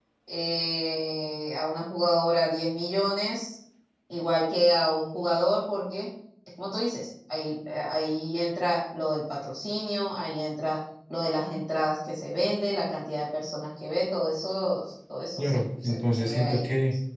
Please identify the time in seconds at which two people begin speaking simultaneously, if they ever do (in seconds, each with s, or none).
15.4 s